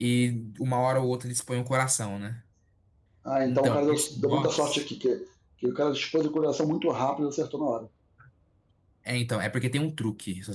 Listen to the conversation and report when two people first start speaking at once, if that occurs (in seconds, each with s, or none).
3.4 s